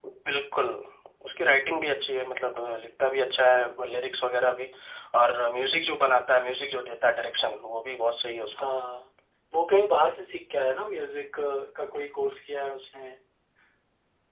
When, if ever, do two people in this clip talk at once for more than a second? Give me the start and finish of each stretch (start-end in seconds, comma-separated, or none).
none